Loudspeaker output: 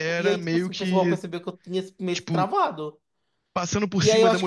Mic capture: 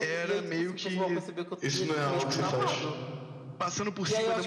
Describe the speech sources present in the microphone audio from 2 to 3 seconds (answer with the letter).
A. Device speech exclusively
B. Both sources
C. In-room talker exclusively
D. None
B